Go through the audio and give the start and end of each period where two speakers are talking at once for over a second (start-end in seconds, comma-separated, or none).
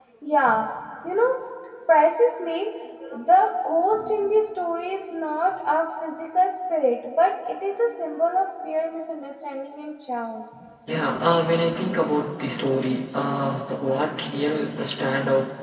none